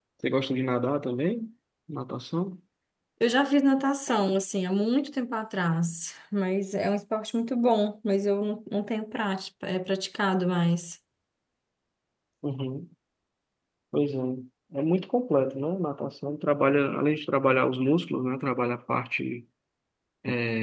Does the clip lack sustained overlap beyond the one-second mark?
Yes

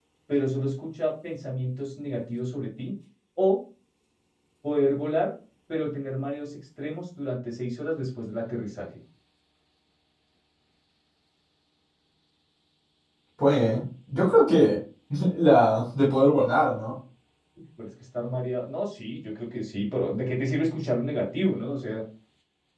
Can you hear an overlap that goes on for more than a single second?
No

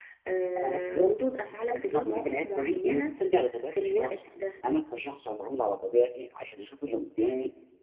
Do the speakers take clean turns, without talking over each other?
No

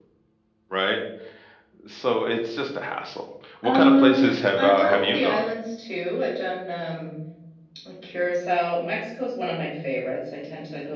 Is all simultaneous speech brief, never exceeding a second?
No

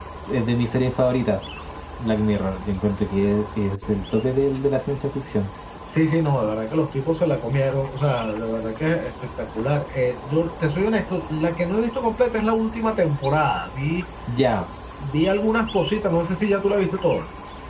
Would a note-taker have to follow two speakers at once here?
No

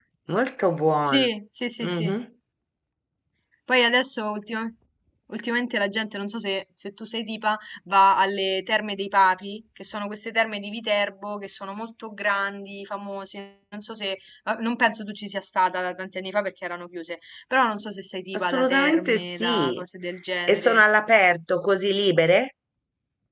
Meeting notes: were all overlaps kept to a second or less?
No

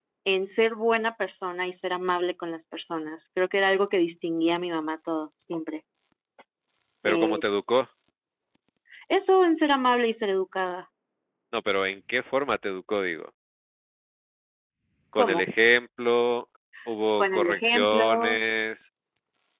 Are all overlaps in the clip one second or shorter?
No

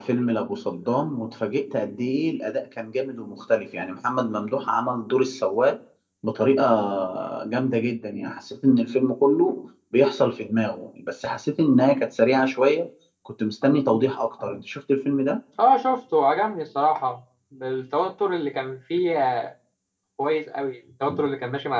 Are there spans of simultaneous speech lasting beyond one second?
No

